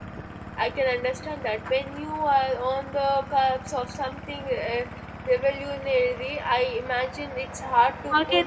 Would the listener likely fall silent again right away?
Yes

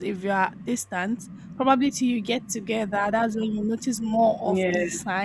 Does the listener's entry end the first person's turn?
No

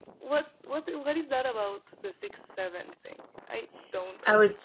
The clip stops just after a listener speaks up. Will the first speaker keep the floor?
No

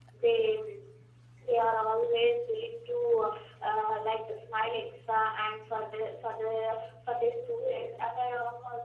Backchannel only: Yes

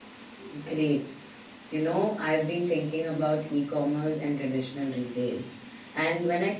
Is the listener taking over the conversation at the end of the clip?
No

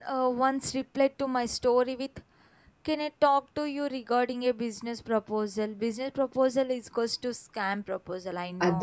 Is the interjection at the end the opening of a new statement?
Yes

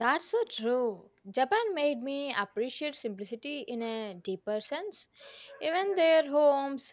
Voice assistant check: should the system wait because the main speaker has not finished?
Yes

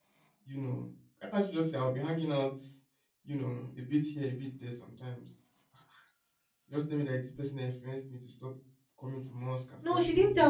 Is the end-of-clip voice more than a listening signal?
Yes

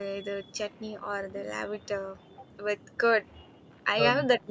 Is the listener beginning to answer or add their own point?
No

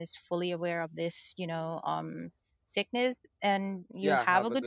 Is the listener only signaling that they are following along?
No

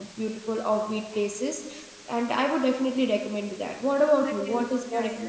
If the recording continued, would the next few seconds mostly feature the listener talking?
Yes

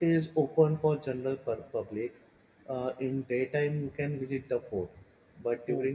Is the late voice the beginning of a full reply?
No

